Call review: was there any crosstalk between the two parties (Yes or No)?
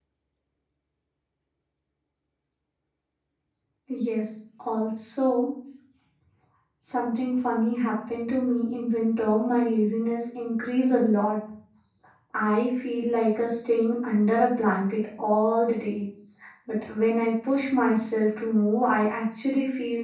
No